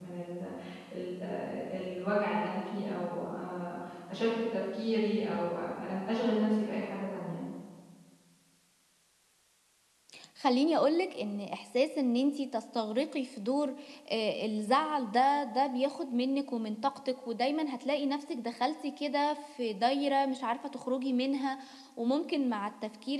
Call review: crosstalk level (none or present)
none